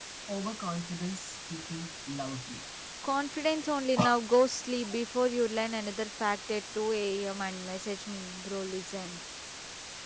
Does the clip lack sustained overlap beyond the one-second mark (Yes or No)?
Yes